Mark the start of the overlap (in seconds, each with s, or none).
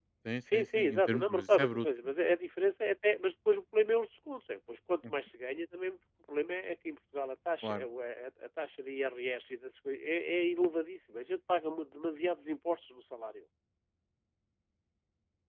0.5 s